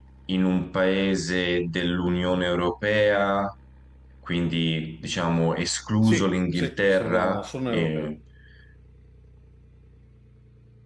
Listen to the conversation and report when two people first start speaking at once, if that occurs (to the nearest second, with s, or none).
6 s